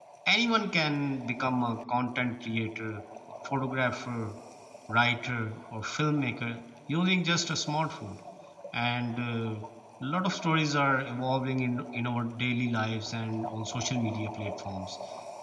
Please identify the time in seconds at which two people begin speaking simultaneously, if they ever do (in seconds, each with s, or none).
none